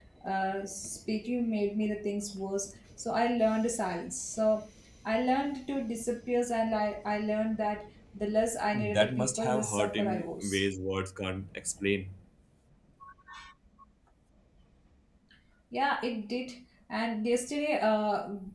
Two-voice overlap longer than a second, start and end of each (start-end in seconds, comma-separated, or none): 8.7-10.6